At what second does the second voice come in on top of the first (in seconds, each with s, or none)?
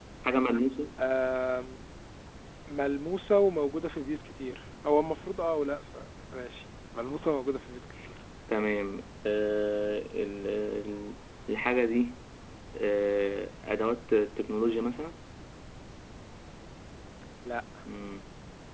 none